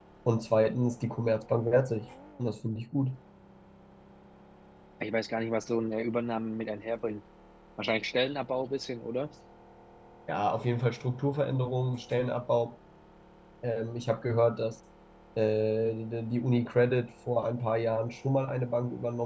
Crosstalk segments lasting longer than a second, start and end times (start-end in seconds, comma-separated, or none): none